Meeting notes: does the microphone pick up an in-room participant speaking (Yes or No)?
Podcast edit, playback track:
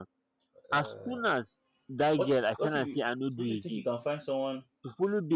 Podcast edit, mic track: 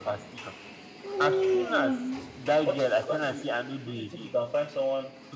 Yes